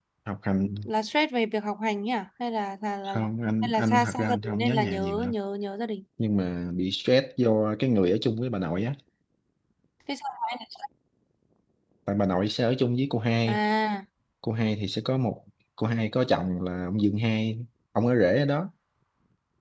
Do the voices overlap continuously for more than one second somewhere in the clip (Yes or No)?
Yes